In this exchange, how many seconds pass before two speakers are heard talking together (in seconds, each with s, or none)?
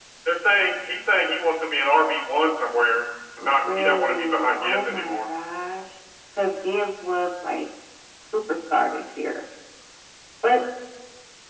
3.4 s